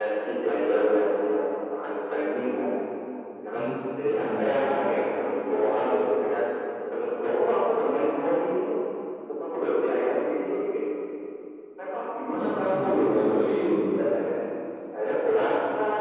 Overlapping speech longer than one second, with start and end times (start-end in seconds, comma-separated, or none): 12.4-13.7